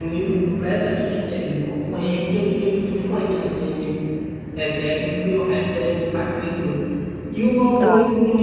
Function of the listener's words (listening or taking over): listening